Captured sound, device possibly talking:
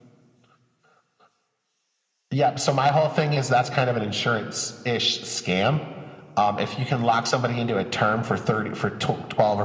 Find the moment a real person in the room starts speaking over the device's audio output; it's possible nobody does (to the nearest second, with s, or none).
none